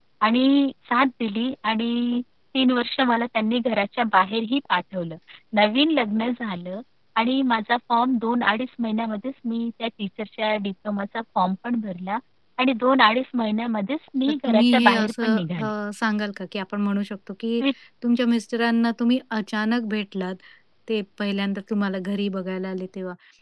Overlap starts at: 14 s

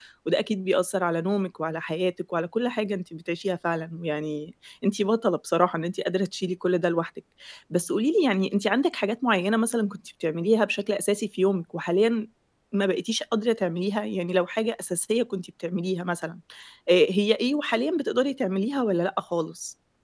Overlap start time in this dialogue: none

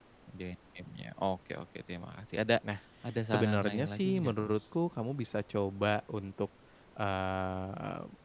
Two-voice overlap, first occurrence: 3 s

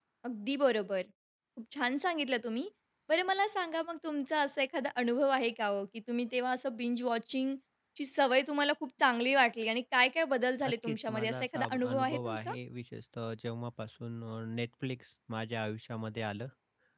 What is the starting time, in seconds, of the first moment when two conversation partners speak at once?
11 s

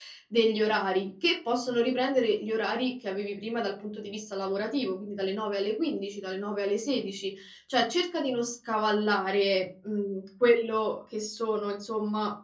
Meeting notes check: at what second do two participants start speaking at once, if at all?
none

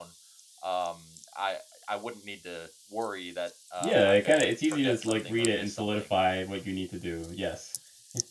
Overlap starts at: 4 s

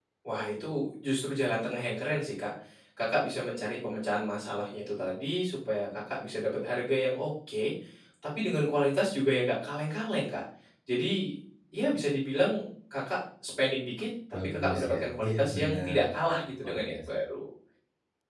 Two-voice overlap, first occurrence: 14 s

